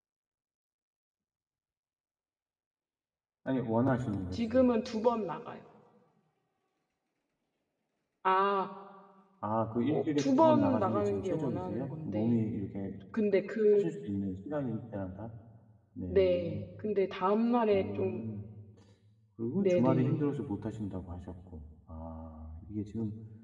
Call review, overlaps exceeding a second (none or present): present